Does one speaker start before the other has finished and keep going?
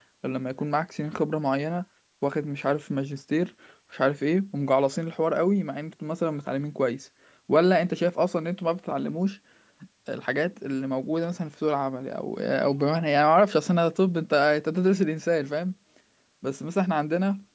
No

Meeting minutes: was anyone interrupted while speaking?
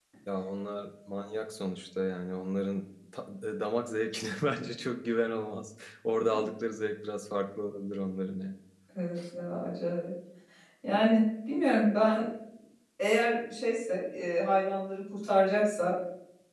No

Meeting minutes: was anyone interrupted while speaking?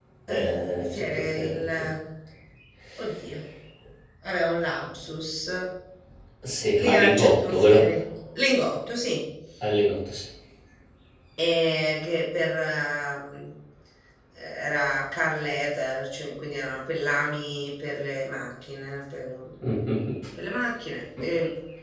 Yes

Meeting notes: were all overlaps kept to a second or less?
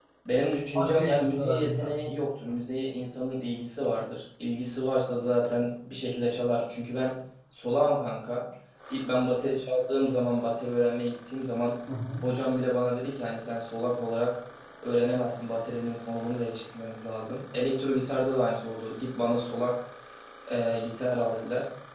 No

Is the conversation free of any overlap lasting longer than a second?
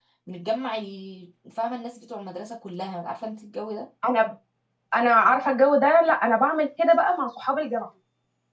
Yes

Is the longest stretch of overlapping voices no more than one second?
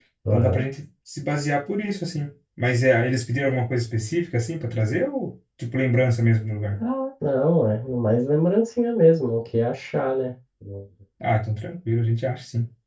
Yes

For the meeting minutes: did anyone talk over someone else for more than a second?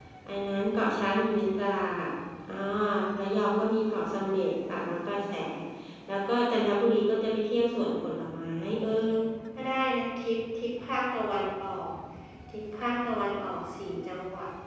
No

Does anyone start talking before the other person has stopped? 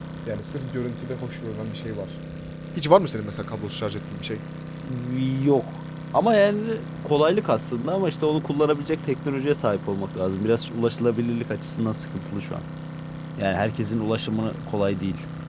No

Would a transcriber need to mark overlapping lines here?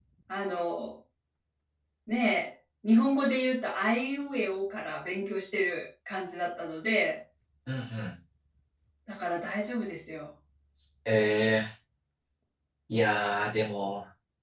No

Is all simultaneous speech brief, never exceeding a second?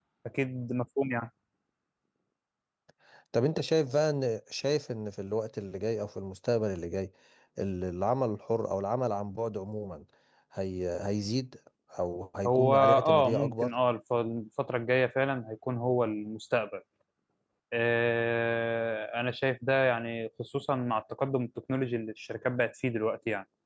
No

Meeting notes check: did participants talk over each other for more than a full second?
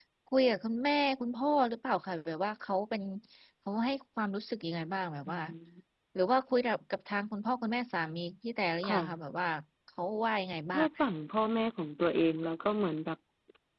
No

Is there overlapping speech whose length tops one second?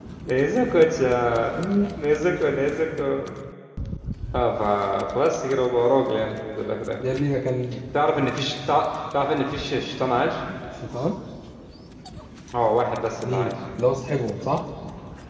No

